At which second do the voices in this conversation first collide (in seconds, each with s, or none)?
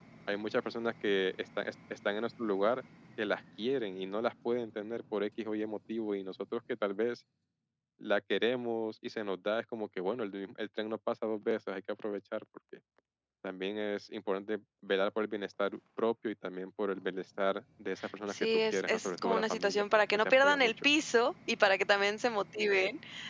18.3 s